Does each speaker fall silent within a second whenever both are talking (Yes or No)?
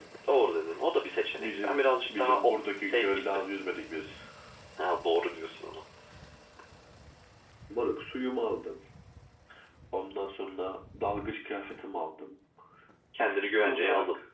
No